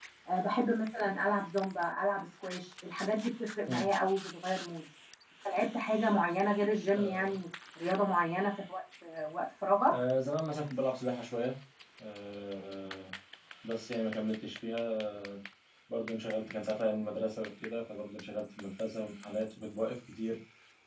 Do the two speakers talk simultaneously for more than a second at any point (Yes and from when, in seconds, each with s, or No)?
No